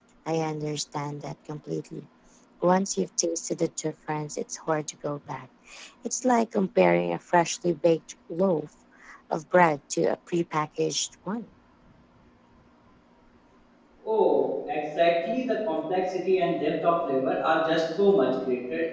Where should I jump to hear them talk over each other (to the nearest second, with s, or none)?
none